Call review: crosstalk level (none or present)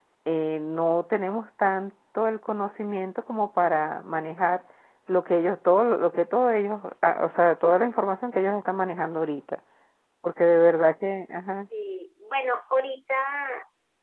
none